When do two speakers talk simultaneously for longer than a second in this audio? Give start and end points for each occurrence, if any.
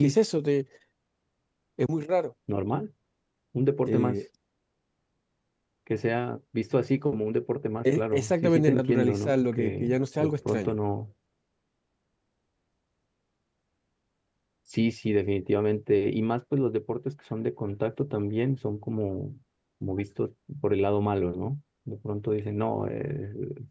8.0-10.8

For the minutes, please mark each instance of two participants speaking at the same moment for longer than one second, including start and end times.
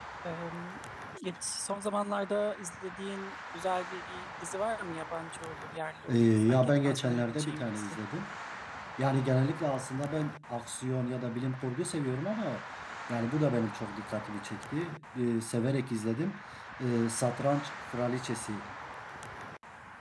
6.1-8.0

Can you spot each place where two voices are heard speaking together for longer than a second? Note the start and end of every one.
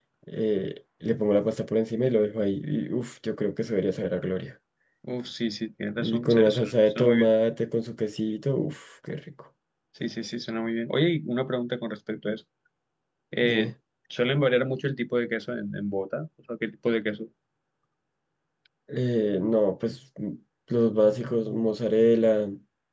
6.0-7.3

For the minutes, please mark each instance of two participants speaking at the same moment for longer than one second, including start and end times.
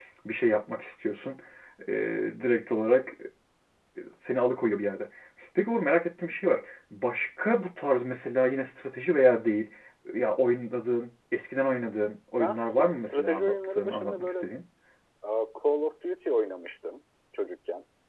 12.4-14.3

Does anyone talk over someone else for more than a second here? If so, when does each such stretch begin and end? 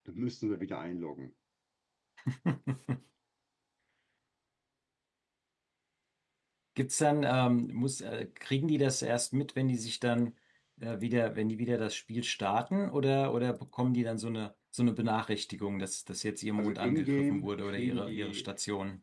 16.6-18.5

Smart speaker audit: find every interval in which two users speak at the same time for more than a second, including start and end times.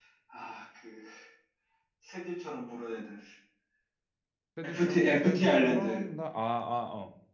4.6-6.0

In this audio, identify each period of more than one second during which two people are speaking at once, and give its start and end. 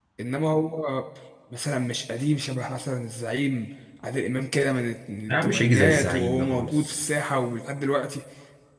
5.3-7.0

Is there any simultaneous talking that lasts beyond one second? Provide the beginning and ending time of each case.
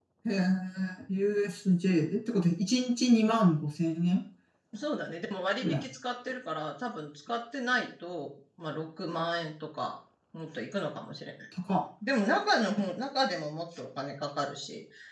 none

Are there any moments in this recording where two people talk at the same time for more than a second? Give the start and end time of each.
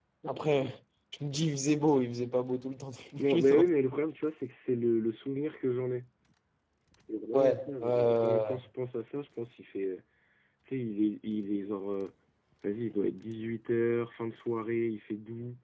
7.3-8.6

